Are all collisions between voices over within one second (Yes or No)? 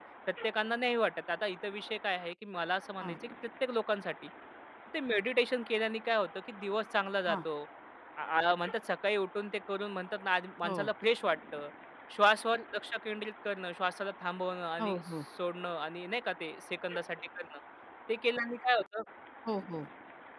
Yes